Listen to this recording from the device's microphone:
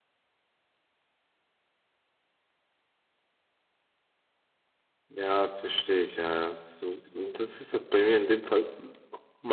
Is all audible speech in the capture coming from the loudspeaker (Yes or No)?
No